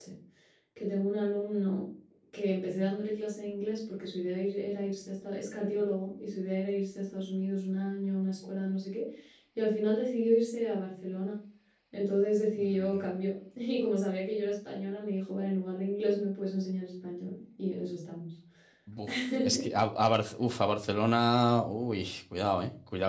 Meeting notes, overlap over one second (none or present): none